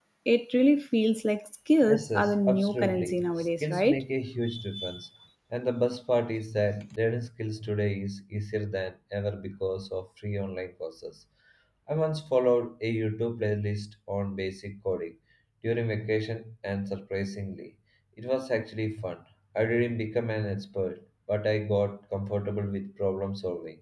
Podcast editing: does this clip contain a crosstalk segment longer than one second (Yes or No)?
Yes